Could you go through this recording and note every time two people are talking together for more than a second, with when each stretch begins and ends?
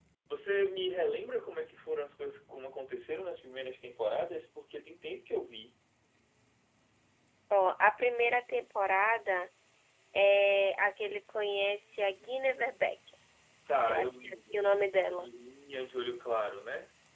13.8-15.2

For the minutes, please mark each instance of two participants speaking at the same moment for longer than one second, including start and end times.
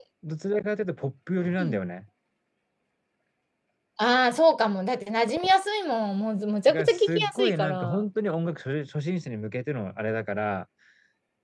6.7-8.0

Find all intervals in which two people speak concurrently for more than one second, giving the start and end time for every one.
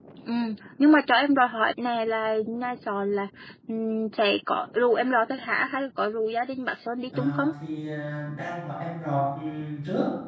none

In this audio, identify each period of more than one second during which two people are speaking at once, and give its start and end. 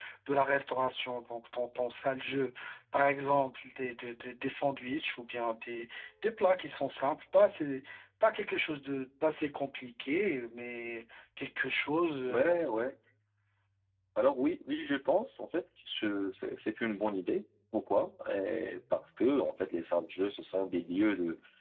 none

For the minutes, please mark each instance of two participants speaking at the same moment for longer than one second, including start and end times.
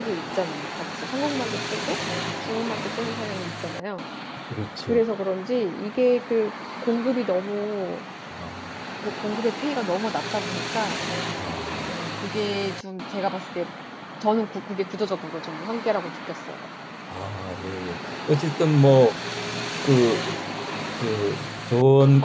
none

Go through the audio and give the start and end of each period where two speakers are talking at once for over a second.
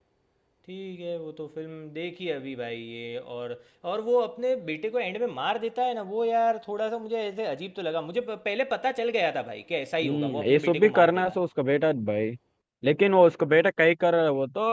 10.0-11.4

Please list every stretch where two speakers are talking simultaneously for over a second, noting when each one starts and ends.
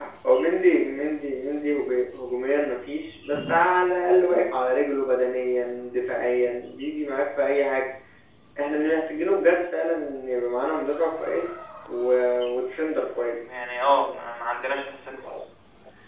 none

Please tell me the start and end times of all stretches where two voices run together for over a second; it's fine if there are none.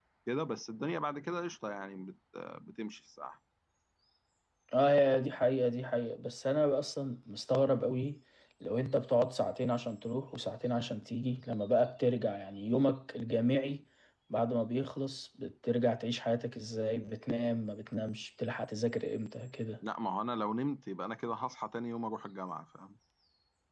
none

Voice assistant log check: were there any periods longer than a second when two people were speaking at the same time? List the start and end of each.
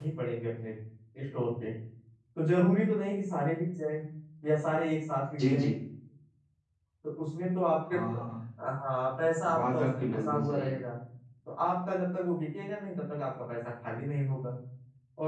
9.5-10.8

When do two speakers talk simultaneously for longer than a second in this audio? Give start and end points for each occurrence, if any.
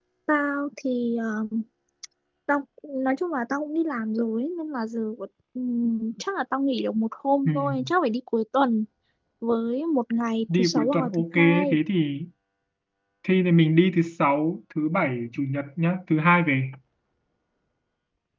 10.5-11.8

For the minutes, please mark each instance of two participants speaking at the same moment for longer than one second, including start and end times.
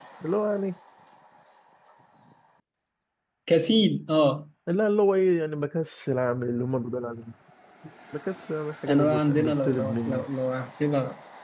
8.9-10.2

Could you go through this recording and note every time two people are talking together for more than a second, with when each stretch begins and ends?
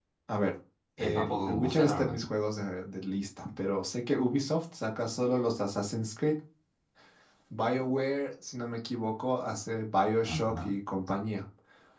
1.0-2.2

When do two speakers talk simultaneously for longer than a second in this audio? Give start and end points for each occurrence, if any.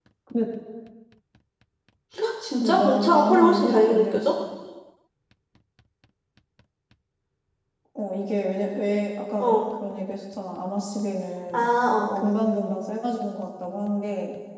2.6-4.3

